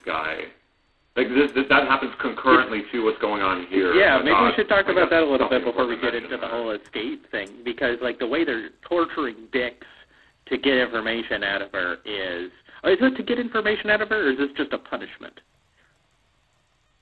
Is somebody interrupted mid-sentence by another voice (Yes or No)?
Yes